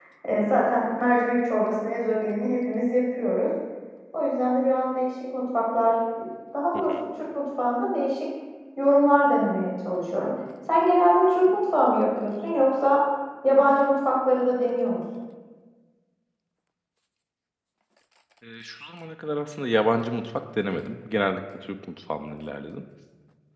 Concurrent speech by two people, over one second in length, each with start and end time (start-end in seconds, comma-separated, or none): none